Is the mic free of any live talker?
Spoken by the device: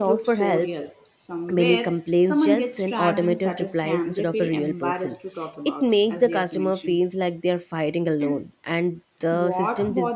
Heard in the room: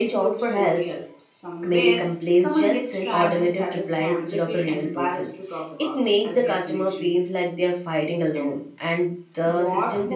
Yes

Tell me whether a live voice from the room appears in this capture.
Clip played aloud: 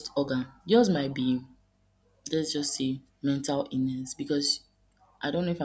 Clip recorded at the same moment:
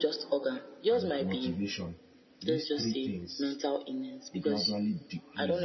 Yes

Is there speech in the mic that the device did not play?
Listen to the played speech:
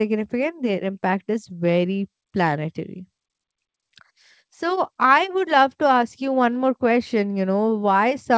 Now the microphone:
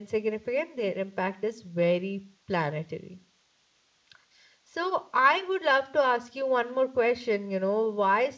No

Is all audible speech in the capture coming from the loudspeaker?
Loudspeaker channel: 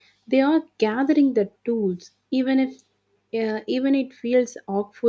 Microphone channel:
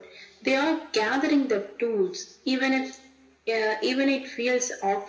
Yes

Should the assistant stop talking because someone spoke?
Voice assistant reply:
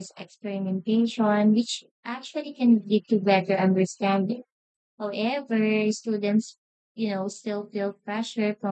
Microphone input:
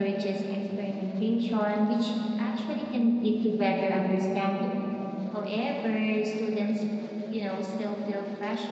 No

